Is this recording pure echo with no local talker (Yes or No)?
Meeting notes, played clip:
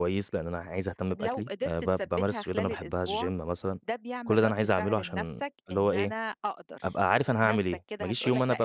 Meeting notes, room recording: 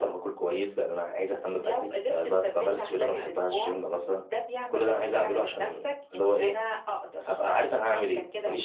Yes